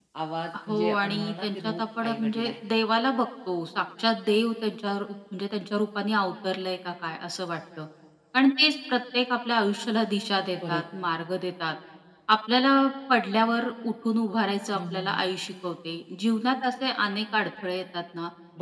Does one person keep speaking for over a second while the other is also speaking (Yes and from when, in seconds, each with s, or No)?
Yes, from 0.7 s